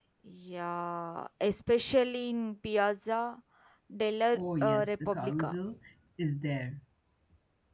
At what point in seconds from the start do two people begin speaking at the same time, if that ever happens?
4 s

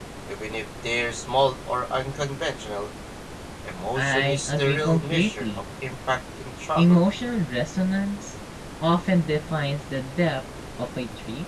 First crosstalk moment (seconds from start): 4 s

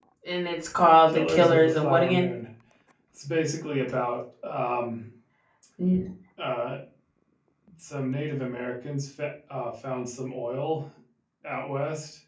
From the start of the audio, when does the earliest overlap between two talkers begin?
1 s

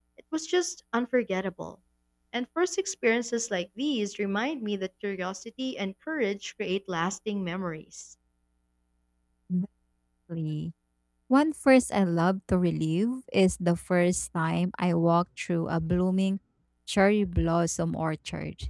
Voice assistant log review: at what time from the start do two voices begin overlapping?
none

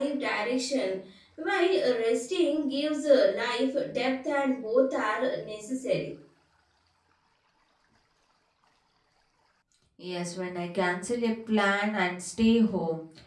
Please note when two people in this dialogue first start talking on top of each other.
none

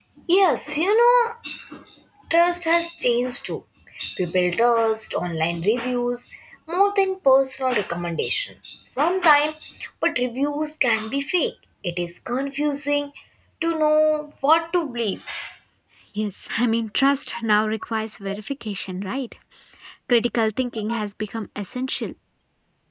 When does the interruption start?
none

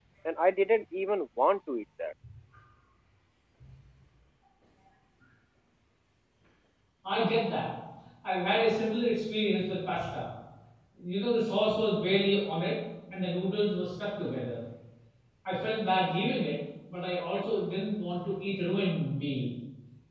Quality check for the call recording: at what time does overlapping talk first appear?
none

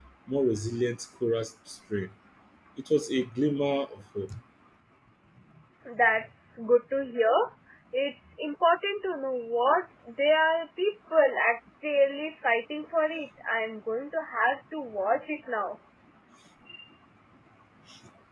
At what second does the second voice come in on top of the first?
none

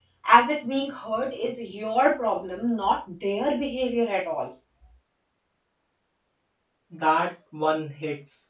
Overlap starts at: none

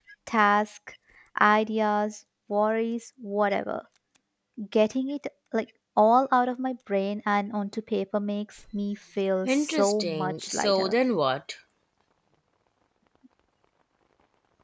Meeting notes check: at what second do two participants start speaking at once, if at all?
9 s

